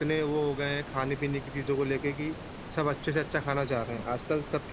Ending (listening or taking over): listening